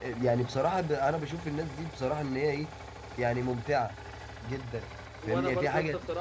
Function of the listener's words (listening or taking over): taking over